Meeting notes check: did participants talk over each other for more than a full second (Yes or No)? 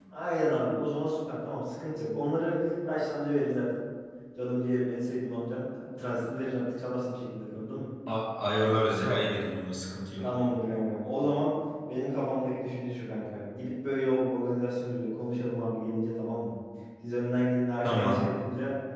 No